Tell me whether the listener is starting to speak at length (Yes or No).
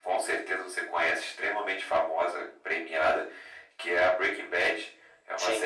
No